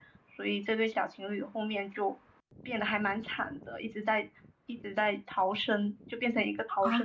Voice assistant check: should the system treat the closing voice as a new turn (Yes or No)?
Yes